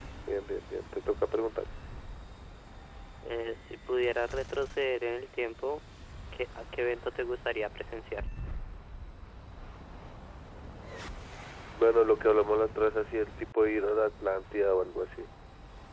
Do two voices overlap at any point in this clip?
No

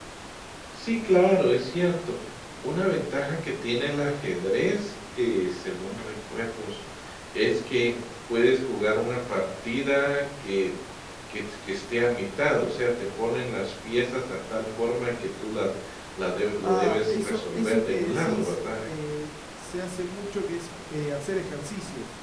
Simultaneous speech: Yes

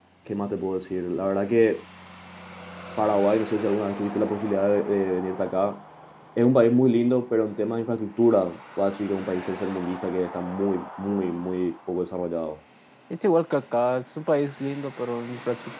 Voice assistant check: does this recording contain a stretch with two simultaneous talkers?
No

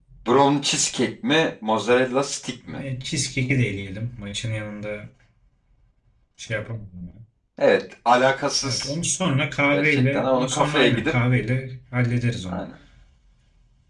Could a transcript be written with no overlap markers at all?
No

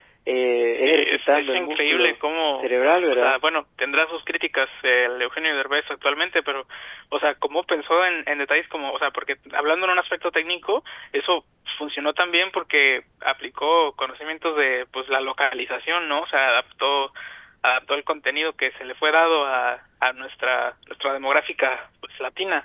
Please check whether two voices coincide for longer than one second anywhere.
Yes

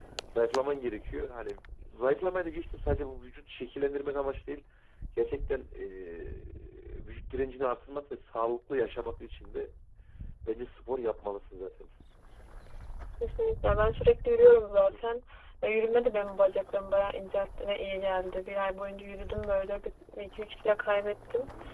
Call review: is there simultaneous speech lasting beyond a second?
No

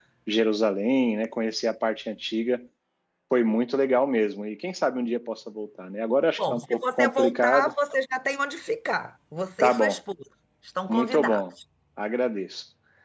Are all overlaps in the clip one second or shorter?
No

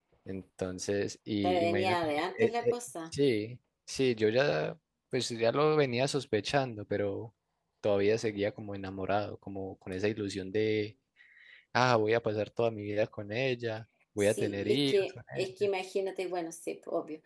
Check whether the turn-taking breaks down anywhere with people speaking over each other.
Yes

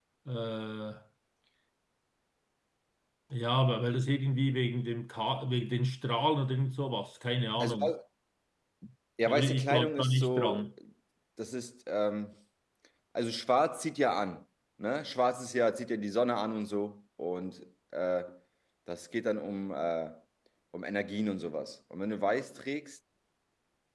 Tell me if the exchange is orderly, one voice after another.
No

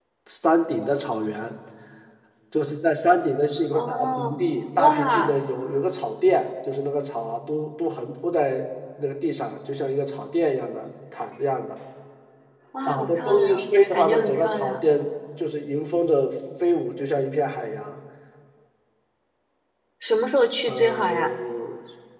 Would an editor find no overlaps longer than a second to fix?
No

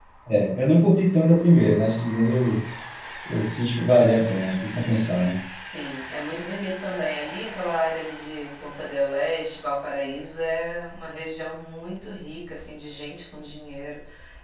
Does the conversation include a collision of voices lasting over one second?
No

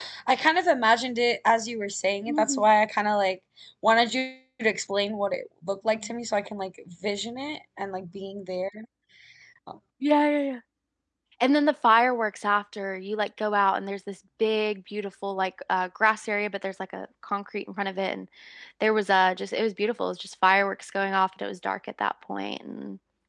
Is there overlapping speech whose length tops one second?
No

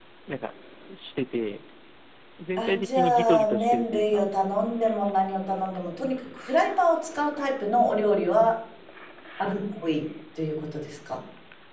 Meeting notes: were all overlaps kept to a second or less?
No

